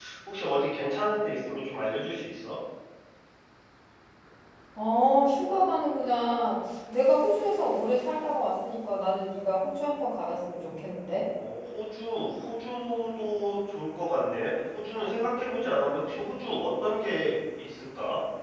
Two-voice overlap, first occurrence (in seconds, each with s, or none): none